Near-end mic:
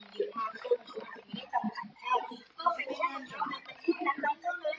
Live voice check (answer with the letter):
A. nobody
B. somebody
B